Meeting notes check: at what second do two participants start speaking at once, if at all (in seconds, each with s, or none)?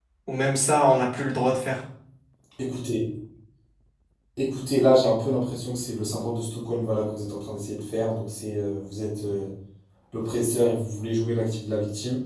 none